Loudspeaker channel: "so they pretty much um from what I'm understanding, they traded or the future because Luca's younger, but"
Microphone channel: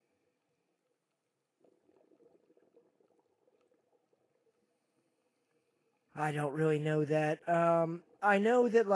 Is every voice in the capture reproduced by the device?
No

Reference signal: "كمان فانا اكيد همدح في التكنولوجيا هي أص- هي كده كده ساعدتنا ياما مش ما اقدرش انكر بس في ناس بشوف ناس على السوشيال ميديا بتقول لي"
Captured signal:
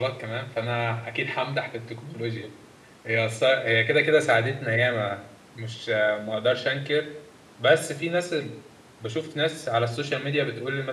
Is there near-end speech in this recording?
No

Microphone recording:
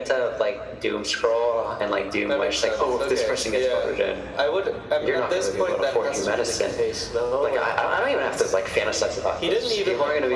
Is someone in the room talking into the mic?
No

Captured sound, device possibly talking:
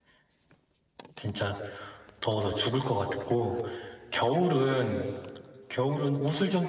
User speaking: Yes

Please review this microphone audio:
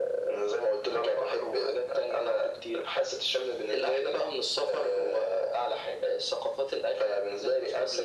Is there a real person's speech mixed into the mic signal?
No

